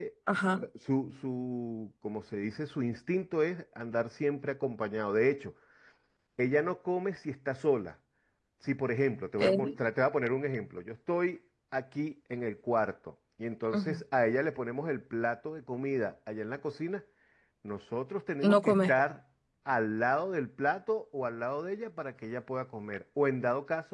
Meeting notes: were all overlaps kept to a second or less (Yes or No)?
Yes